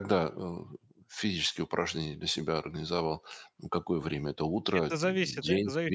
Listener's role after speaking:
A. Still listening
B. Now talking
B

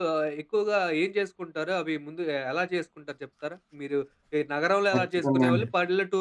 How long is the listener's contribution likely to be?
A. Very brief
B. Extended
A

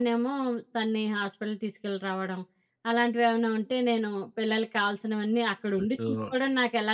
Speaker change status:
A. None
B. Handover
A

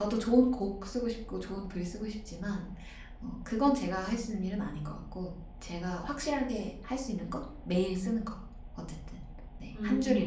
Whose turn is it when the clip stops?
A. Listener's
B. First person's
A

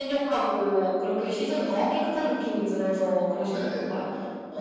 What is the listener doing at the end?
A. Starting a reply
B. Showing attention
A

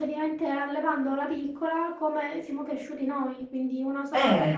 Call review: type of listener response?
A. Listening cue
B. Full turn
A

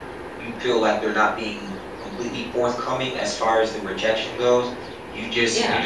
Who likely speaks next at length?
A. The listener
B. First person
B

